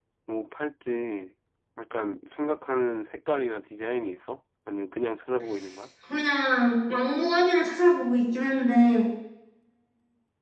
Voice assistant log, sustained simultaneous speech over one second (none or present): none